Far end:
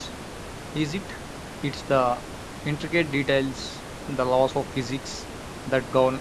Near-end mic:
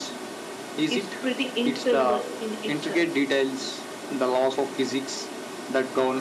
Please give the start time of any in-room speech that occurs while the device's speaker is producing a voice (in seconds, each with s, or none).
0.9 s